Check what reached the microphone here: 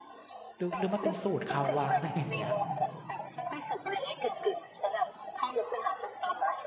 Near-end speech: present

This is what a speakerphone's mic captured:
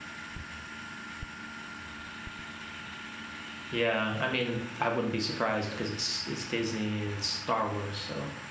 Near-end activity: present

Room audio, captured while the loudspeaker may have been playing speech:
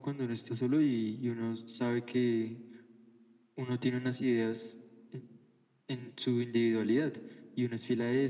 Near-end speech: none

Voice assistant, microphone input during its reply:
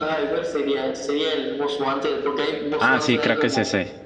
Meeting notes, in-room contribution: present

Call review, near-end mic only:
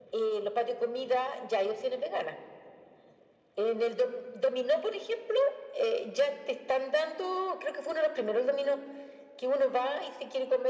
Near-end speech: none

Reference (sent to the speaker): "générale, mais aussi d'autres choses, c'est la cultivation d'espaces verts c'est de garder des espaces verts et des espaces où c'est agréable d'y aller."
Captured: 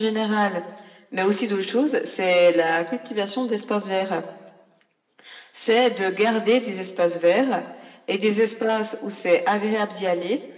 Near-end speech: none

